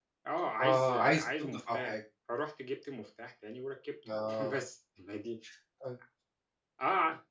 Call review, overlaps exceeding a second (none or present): present